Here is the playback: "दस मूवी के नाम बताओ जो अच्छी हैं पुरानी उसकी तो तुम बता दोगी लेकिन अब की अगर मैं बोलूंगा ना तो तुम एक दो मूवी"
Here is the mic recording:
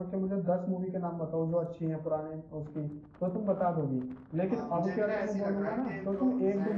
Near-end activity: present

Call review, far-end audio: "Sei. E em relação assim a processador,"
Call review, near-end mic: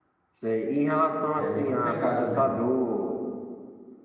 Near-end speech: present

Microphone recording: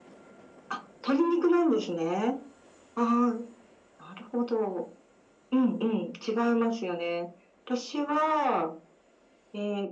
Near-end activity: none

